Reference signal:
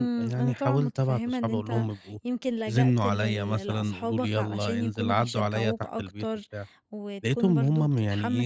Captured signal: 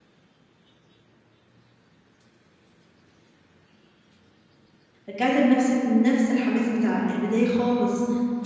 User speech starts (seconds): 5.1 s

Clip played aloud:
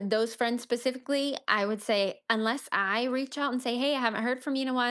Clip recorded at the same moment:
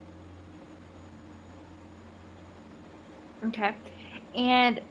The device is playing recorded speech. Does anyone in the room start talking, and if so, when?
3.5 s

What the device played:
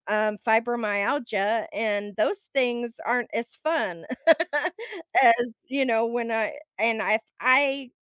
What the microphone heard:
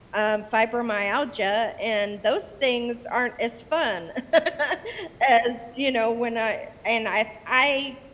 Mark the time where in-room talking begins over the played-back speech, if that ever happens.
none

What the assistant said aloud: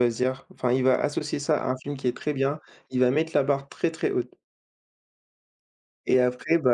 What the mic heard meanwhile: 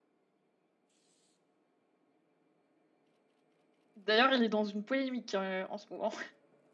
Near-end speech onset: 4.0 s

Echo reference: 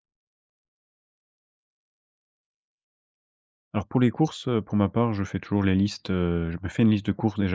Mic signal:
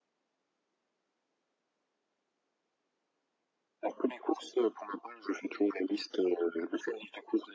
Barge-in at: none

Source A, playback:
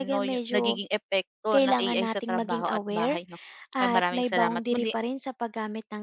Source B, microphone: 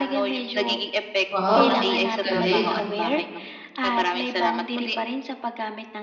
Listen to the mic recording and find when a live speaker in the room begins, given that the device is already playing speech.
1.3 s

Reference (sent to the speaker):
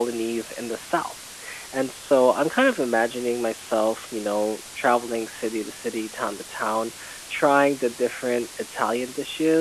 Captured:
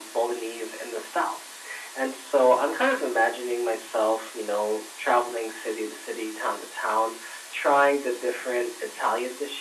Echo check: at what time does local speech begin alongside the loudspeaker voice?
none

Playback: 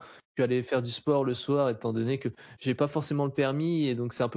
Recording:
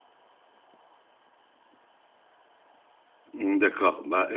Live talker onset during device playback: 3.3 s

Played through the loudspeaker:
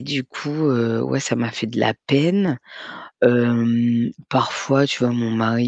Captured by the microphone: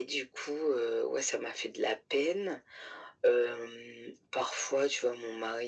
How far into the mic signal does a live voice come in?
none

